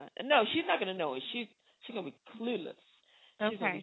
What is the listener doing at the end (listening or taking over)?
taking over